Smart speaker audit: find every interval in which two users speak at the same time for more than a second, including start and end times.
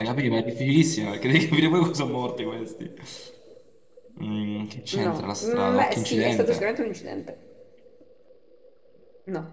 4.9-6.6

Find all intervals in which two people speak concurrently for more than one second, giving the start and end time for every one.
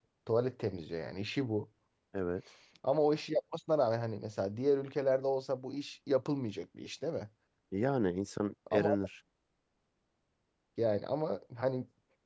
none

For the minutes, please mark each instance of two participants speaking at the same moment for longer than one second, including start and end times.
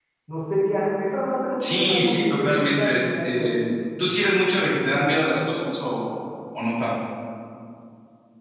1.6-3.5

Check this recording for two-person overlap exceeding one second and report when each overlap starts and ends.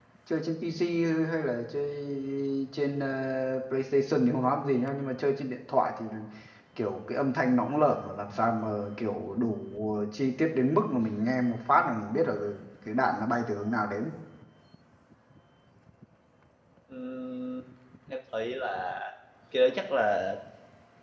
none

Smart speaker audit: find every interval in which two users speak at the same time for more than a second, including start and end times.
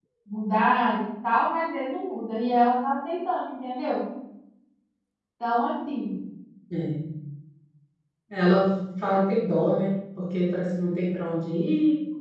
none

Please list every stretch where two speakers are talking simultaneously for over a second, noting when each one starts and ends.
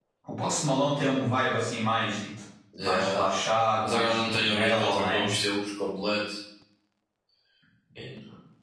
3.8-5.3

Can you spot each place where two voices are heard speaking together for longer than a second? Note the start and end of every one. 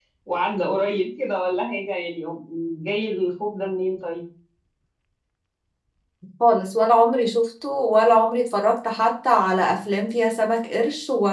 none

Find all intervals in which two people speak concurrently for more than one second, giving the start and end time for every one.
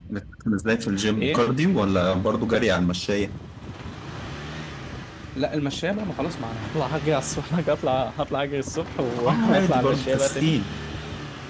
9.2-10.5

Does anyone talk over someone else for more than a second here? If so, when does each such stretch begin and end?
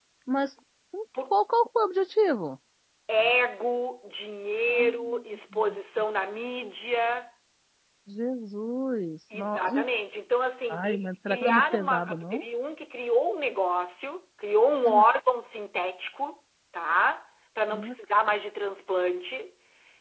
10.7-12.4

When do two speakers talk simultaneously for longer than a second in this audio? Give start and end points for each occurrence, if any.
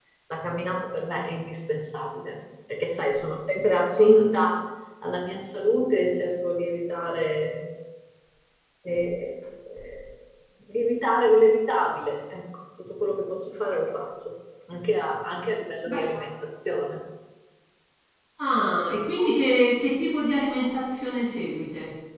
none

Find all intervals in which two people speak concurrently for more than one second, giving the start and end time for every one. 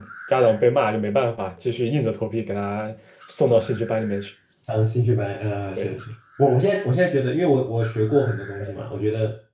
none

